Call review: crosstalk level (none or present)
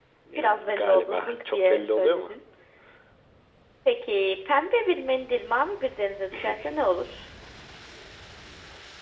present